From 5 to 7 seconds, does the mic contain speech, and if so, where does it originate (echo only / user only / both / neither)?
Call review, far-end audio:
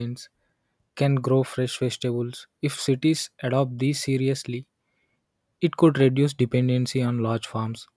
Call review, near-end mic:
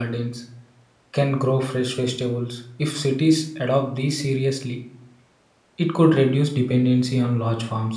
echo only